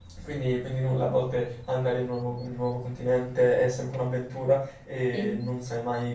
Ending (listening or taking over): listening